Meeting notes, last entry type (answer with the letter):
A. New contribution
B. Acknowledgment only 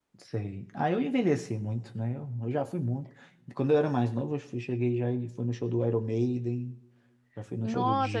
A